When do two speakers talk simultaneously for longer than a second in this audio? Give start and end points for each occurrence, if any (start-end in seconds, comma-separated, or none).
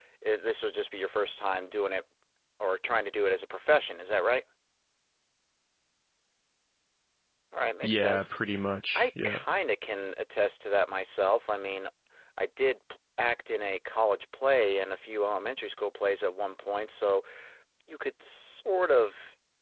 none